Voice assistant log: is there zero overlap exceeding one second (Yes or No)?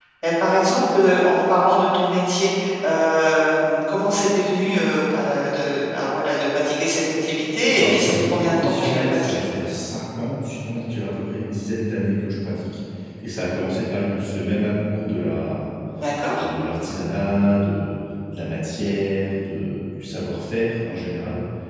No